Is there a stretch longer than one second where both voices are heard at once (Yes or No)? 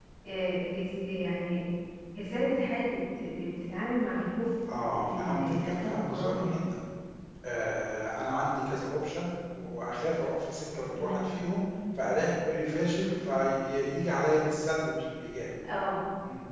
Yes